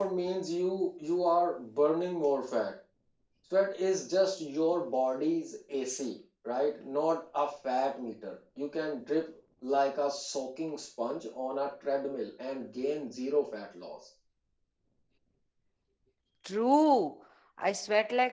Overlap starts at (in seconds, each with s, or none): none